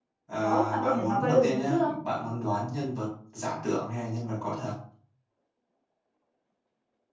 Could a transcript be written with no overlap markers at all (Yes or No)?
No